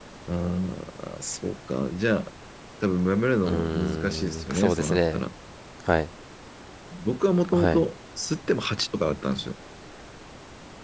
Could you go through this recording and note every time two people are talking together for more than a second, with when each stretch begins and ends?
3.5-5.2

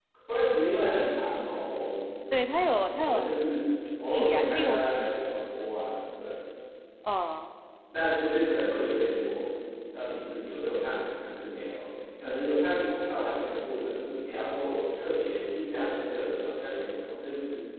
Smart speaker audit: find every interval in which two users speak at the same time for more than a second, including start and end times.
4.1-5.4

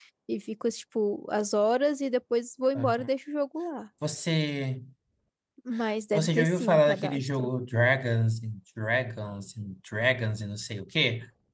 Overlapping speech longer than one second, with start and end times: 6.1-7.5

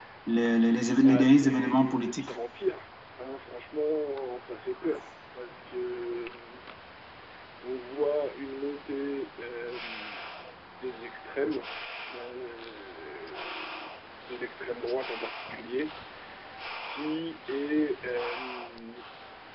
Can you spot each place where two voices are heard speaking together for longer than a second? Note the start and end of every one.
1.0-2.3

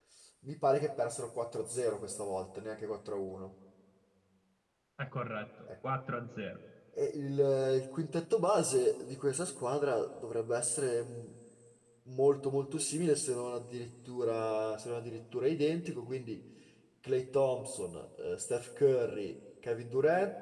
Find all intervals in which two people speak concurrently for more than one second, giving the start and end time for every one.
none

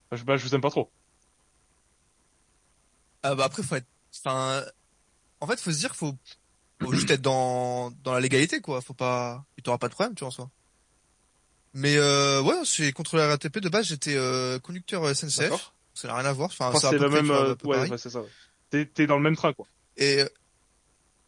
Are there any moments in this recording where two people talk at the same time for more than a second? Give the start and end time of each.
16.7-17.9

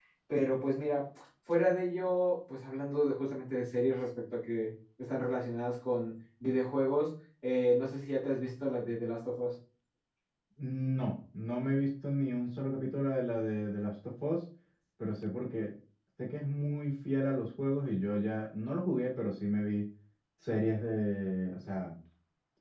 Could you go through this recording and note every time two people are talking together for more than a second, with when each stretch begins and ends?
none

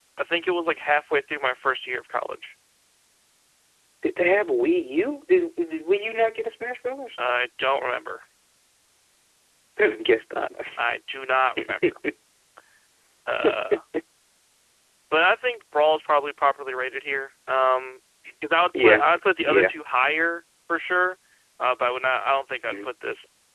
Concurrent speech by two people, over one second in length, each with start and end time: none

